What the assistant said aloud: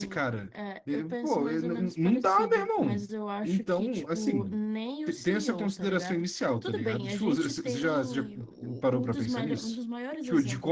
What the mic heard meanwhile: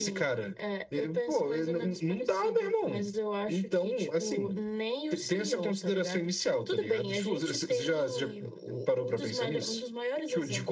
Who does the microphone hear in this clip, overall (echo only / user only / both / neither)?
echo only